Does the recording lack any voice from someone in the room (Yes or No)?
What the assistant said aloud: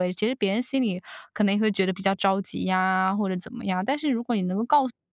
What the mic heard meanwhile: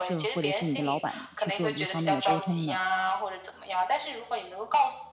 No